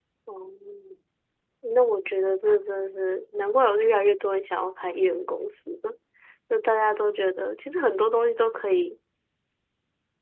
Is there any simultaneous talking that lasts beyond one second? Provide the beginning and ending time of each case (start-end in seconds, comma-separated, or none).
none